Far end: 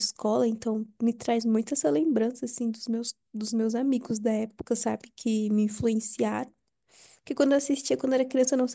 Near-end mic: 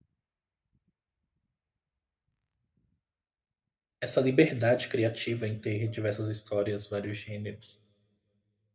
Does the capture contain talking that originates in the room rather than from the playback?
Yes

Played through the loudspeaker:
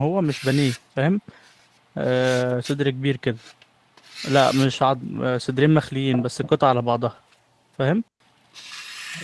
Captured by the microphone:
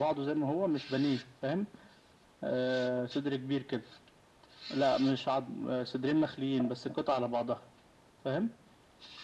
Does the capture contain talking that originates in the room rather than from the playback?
No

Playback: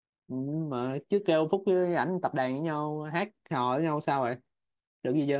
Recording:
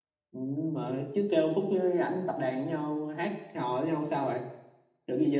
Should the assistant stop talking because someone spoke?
No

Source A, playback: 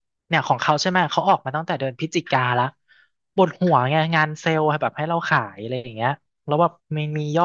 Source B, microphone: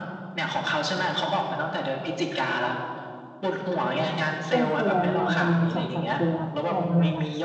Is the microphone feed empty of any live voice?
No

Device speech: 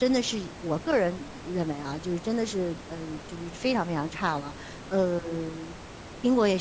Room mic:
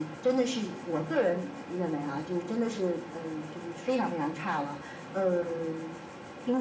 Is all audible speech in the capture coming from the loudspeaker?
Yes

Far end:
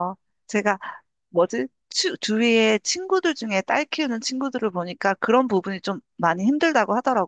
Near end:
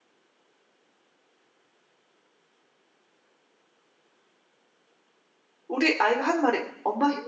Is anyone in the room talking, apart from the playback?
Yes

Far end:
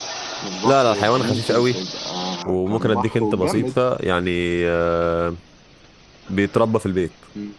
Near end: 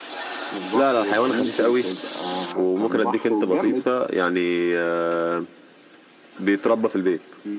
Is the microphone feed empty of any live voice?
Yes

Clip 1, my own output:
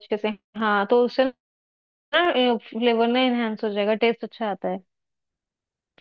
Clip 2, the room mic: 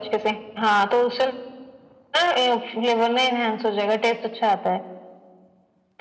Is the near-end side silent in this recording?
Yes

